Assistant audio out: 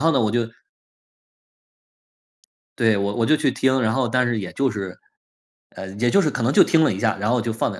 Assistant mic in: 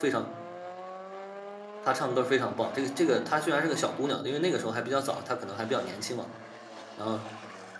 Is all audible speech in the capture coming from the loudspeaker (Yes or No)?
No